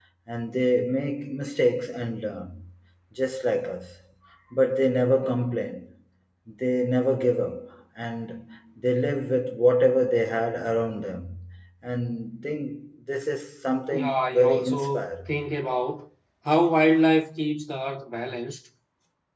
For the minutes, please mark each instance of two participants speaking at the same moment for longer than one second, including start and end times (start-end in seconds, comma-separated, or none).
13.9-15.3